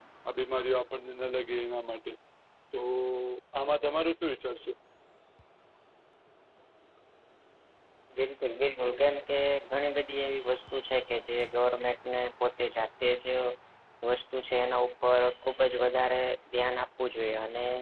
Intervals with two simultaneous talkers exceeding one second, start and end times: none

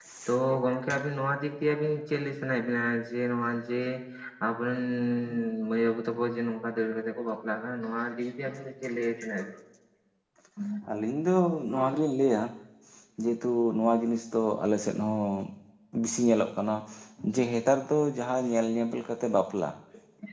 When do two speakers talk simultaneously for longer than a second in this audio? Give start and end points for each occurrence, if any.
none

